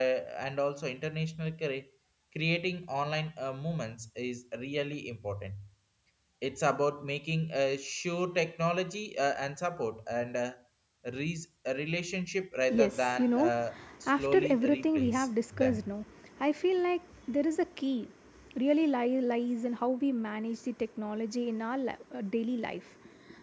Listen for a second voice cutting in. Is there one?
Yes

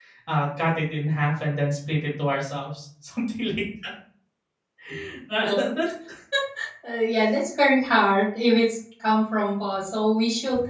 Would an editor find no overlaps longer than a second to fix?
Yes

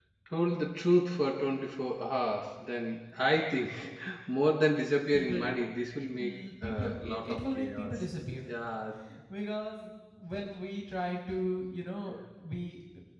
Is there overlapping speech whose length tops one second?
Yes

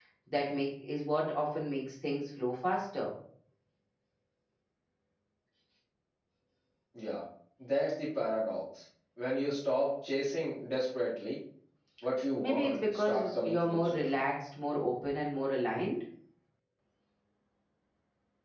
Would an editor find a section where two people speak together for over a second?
Yes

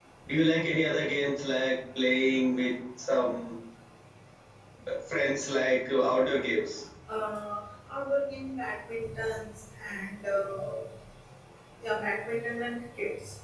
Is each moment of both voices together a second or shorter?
Yes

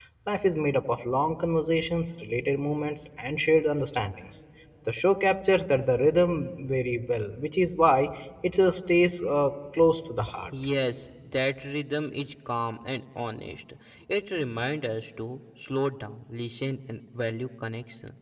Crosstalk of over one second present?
No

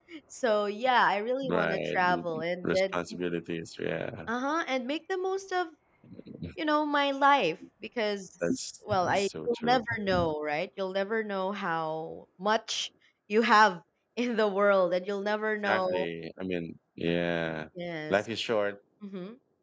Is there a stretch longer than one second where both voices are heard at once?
Yes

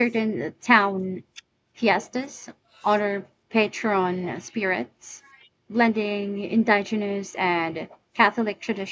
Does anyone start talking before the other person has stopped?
No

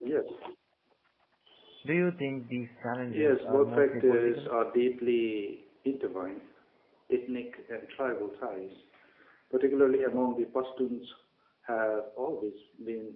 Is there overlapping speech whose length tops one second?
Yes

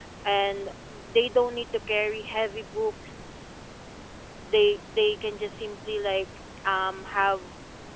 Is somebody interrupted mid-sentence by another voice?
No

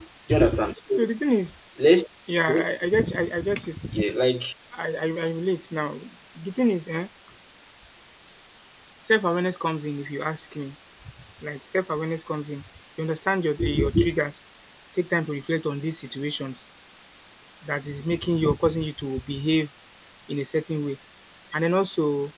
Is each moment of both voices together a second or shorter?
Yes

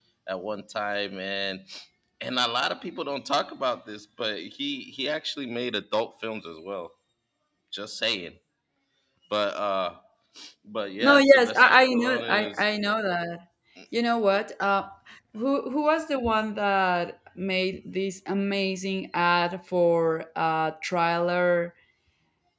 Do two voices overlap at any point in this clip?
Yes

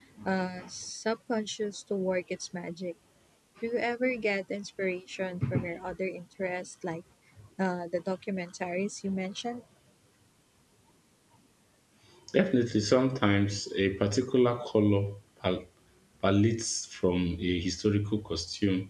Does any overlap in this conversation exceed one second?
No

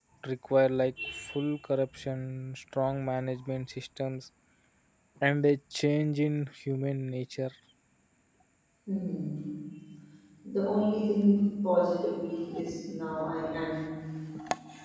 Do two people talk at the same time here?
No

